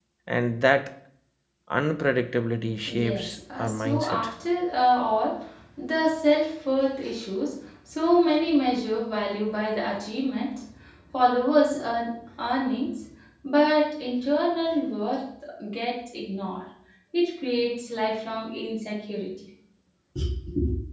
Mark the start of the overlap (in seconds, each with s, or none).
2.9 s